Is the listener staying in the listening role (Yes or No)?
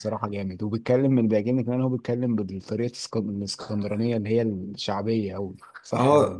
No